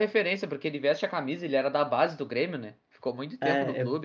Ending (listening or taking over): taking over